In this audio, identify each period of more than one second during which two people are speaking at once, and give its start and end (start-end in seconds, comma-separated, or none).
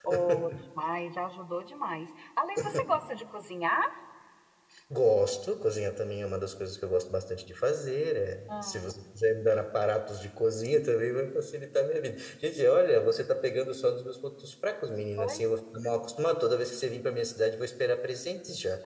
none